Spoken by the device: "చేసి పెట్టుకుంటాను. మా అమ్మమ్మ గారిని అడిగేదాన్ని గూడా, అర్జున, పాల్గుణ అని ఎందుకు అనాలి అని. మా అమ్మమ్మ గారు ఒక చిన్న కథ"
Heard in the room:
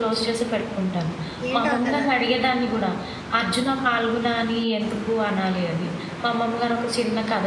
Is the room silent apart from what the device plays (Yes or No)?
No